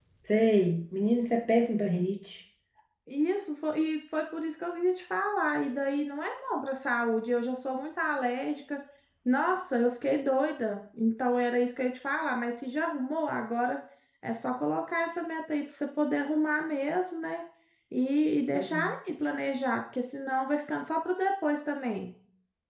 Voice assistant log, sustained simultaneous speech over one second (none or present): none